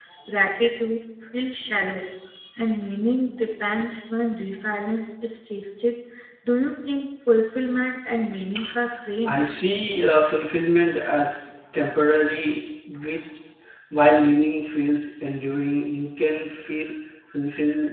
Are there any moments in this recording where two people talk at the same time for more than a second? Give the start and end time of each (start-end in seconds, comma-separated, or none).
none